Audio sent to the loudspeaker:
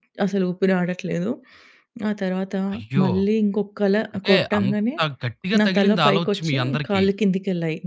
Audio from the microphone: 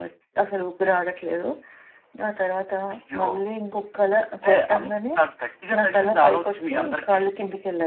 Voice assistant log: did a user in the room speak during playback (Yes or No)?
No